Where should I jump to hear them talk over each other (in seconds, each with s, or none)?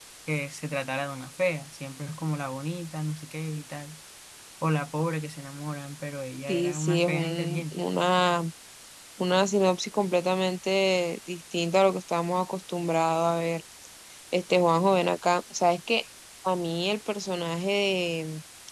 6.5 s